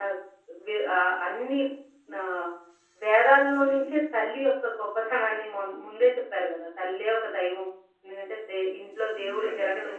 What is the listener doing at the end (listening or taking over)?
listening